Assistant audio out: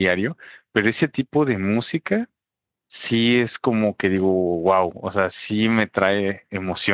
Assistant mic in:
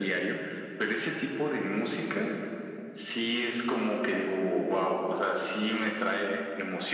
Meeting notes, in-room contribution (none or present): none